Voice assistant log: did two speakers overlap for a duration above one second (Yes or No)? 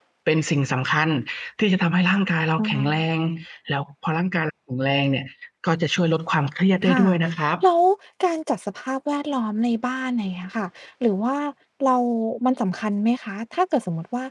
No